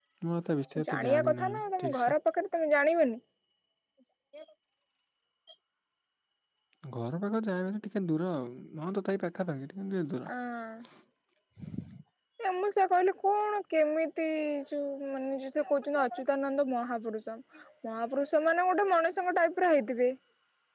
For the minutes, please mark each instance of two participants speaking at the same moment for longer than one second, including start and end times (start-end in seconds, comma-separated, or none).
0.9-2.1